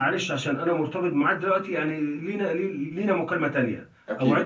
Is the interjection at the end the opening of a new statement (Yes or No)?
No